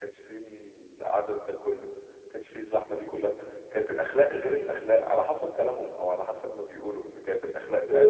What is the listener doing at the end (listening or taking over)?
taking over